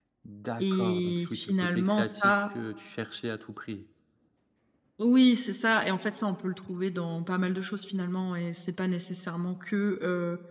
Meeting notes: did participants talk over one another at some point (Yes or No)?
Yes